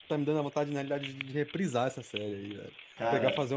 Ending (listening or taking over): listening